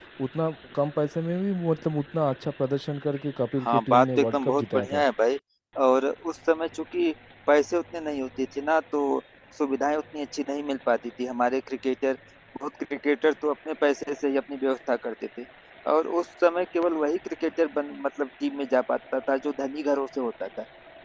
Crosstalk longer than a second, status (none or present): present